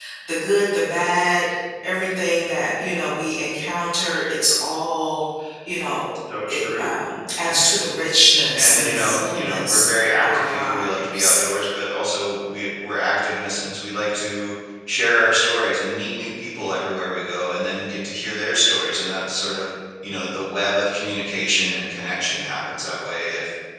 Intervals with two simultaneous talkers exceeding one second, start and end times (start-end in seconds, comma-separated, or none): 8.5-11.4